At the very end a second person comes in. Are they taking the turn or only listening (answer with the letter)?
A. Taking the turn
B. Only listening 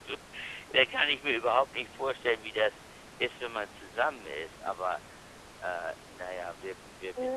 A